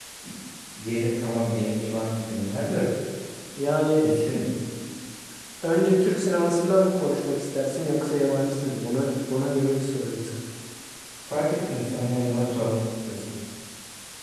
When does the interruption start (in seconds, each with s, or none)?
none